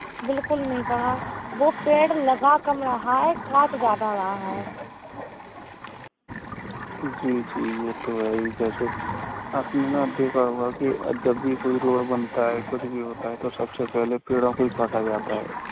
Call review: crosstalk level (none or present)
none